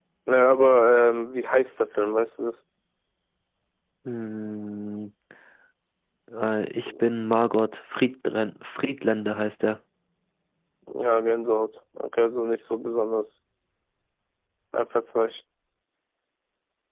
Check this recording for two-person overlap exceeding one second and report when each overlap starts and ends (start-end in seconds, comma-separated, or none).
none